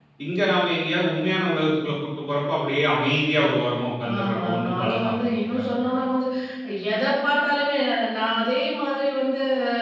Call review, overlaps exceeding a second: present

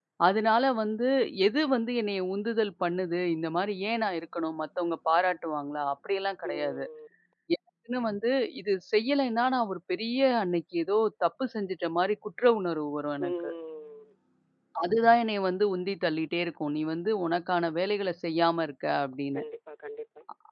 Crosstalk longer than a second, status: none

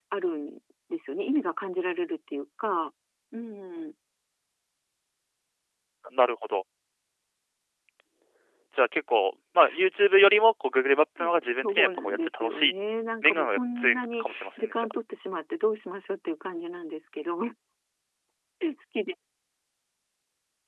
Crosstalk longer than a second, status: present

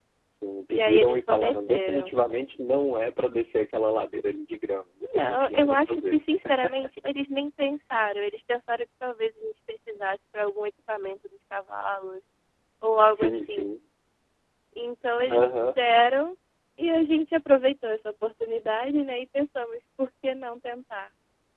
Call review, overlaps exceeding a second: present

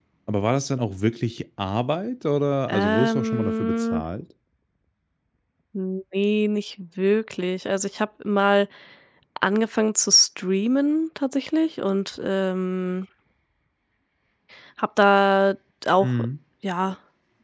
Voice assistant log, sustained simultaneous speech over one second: present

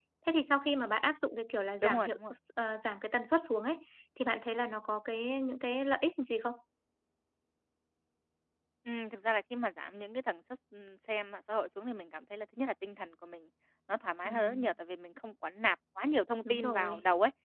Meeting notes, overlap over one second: none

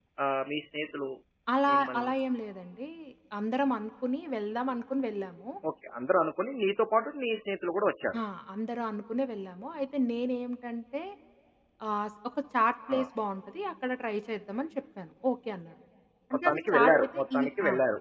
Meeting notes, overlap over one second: present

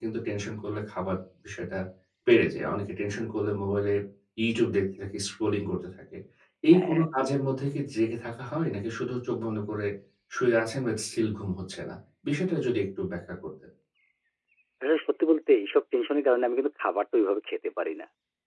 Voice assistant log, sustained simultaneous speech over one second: none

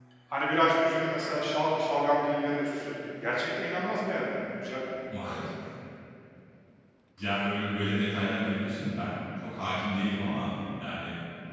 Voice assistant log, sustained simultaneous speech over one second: none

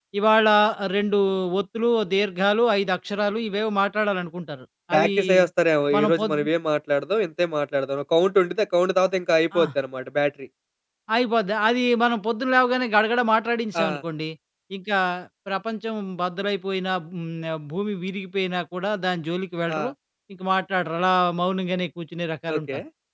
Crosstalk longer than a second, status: none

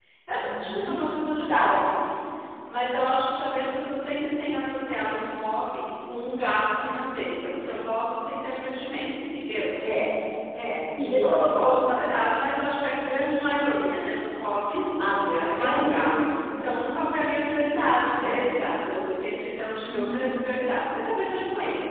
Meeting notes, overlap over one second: present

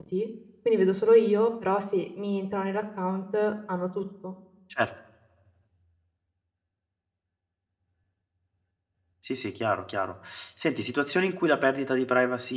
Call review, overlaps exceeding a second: none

